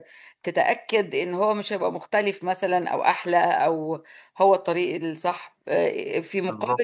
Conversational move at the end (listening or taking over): listening